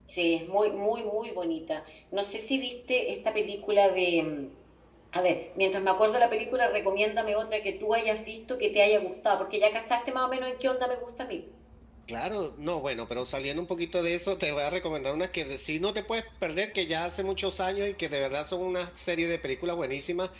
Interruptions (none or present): none